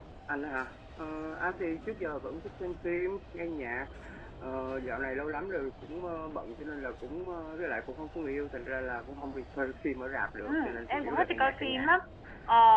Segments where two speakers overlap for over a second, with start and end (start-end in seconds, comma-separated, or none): 10.4-11.9